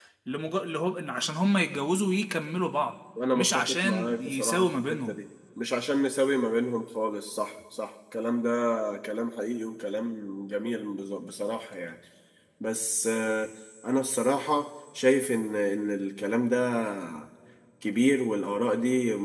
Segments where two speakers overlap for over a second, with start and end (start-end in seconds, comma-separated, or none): 3.4-5.2